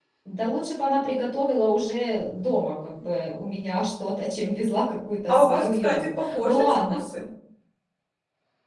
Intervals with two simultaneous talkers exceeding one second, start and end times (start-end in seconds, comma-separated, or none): 5.3-7.0